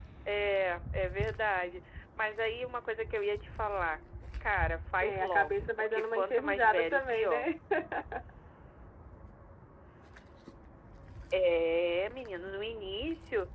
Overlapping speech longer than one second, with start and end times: 5.0-7.4

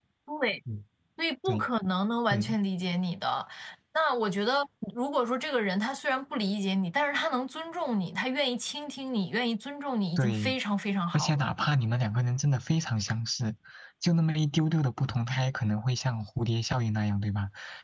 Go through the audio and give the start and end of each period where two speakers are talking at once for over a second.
none

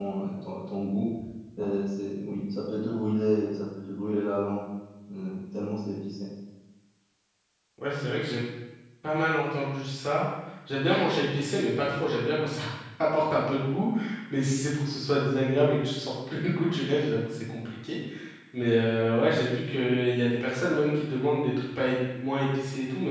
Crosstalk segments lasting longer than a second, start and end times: none

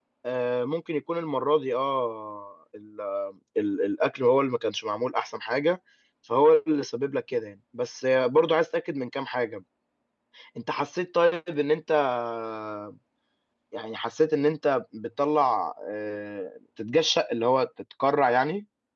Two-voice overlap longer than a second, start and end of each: none

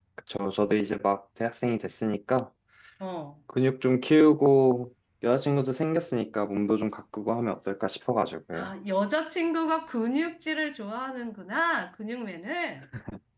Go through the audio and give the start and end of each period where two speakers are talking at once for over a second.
none

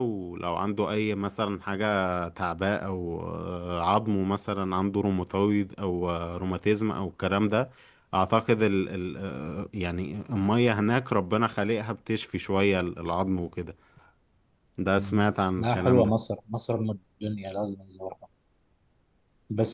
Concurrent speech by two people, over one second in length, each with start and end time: none

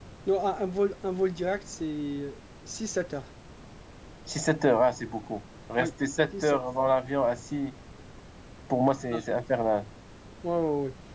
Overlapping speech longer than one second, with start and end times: none

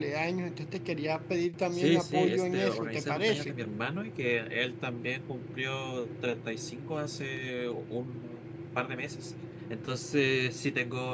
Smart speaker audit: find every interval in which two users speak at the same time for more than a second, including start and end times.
1.7-3.5

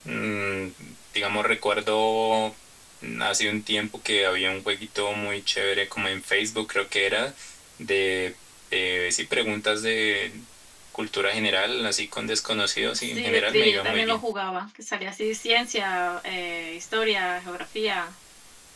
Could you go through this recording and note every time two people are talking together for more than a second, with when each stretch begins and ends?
13.0-14.2

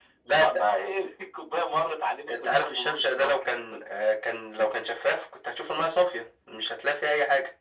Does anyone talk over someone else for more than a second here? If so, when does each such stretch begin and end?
2.3-3.6

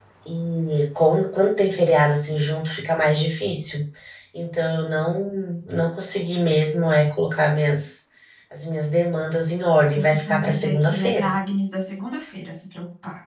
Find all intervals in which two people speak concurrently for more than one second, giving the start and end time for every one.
9.9-11.3

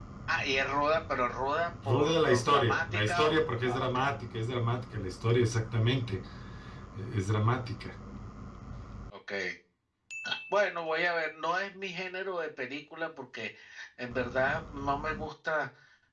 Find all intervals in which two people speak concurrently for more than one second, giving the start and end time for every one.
1.9-4.0

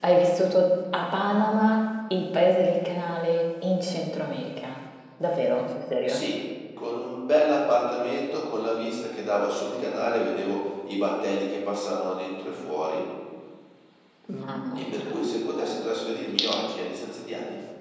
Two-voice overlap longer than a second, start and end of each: none

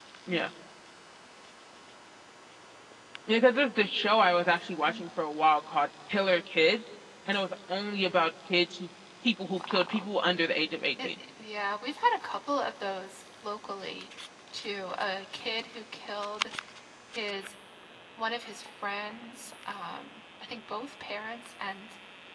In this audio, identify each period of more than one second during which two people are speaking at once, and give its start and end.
none

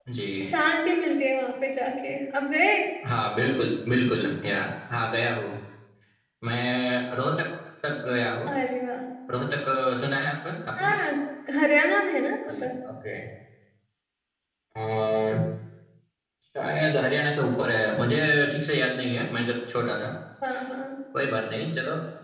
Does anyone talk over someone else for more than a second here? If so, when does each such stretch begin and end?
none

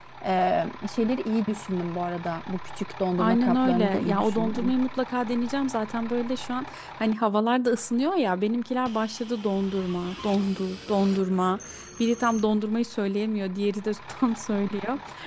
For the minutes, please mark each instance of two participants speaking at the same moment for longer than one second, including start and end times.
3.2-4.7

